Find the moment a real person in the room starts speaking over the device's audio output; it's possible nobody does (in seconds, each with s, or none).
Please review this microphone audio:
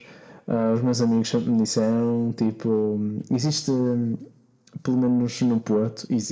none